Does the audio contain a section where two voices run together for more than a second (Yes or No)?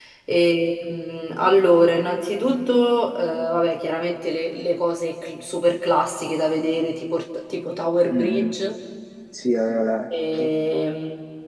No